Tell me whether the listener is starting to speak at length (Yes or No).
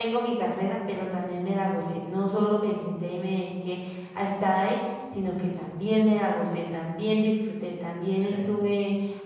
No